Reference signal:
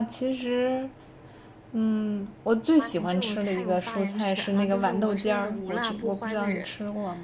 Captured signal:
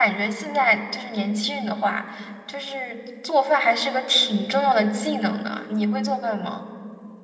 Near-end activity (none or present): present